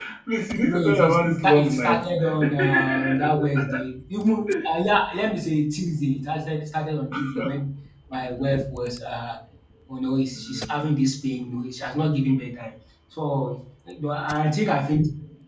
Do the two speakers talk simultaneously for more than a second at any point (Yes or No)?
Yes